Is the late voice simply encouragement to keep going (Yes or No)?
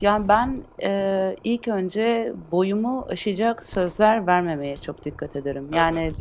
Yes